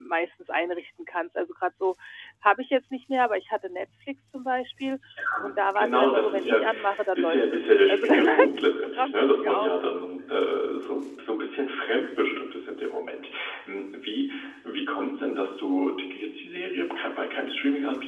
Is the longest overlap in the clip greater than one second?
Yes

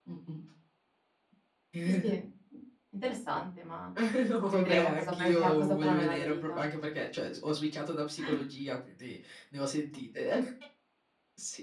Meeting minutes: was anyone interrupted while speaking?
Yes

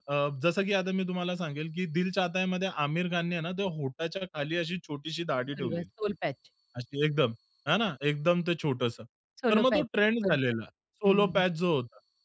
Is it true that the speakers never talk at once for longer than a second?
Yes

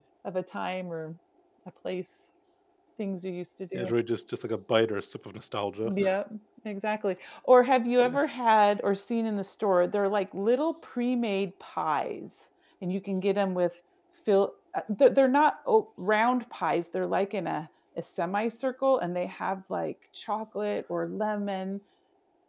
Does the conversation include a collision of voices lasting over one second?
No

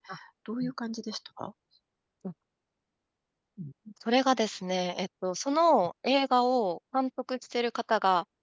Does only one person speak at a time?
Yes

